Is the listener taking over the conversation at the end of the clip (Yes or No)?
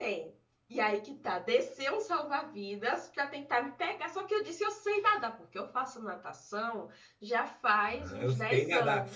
Yes